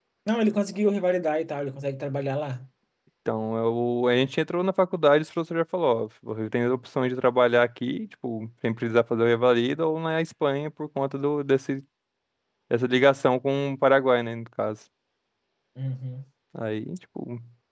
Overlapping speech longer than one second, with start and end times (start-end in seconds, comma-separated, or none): none